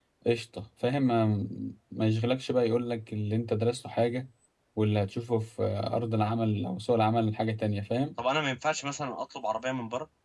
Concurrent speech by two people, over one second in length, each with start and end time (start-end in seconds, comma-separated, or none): none